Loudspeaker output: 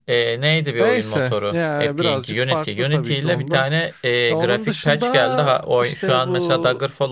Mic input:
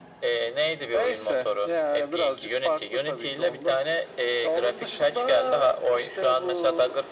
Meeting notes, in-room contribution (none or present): none